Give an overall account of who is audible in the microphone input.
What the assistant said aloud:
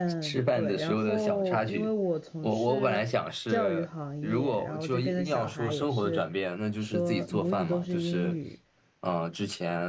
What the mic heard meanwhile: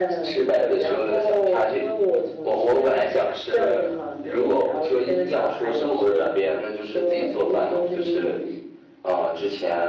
echo only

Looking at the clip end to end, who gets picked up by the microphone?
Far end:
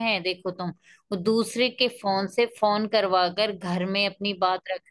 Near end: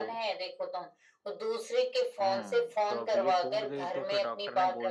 both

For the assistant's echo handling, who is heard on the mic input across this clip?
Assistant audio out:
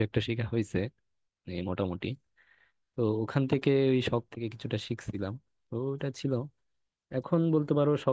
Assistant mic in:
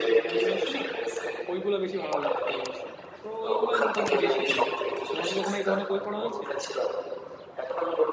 both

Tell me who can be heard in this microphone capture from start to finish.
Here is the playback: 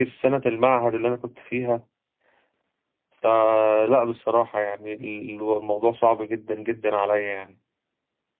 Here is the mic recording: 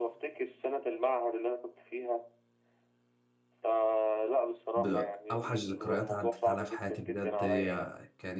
both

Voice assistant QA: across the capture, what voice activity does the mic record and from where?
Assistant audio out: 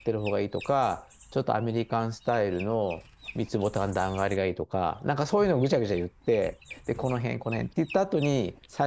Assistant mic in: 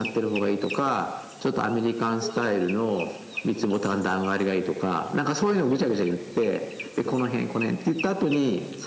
both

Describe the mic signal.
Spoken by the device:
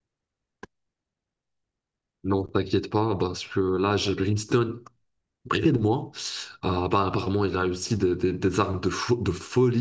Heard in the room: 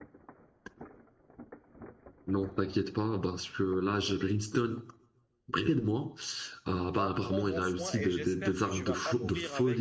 both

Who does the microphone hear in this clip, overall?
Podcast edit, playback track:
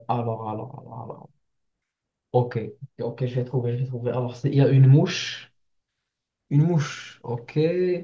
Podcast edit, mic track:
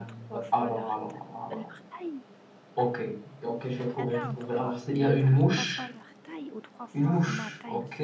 both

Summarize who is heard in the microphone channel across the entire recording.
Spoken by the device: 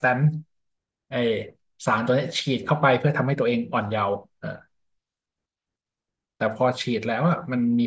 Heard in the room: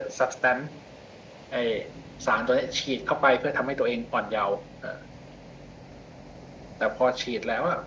echo only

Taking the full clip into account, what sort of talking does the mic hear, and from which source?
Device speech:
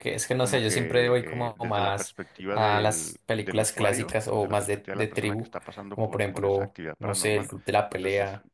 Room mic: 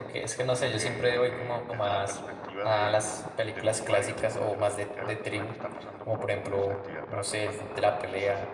echo only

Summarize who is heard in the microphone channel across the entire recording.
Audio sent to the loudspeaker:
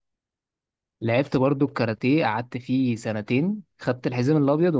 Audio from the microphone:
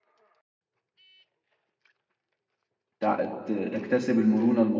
user only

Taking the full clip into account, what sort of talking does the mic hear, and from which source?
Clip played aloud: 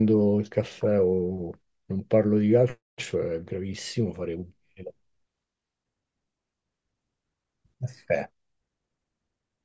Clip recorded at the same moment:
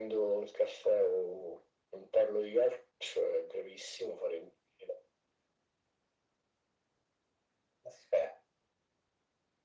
echo only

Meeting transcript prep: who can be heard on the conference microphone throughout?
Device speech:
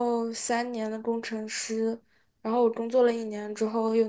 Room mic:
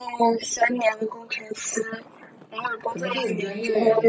both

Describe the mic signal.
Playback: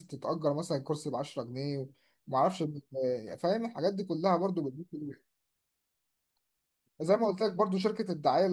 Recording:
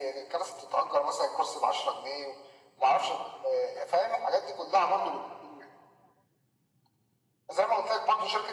echo only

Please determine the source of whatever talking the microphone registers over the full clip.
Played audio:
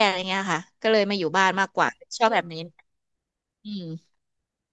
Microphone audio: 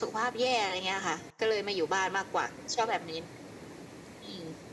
echo only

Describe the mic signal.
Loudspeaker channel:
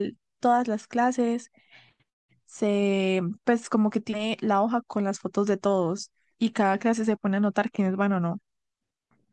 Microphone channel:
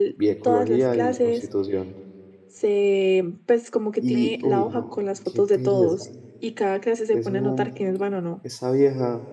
both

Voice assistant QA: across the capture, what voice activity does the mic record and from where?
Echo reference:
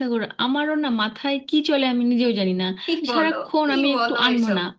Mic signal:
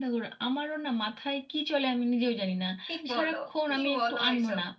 echo only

